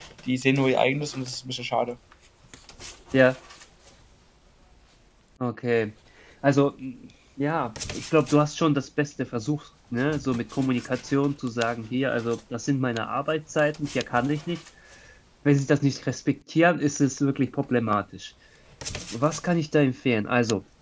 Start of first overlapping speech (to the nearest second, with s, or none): none